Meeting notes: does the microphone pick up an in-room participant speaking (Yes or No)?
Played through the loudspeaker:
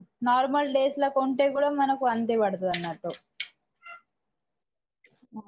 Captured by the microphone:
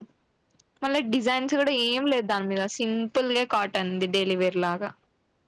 Yes